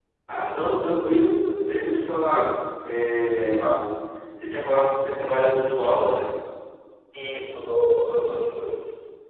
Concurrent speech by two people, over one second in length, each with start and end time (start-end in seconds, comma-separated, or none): none